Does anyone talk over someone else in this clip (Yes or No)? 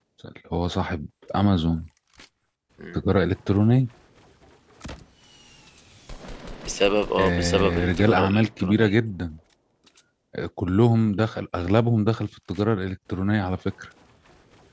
Yes